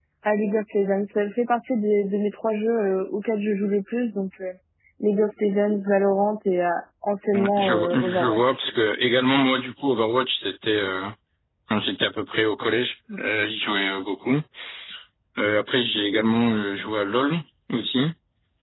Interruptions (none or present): present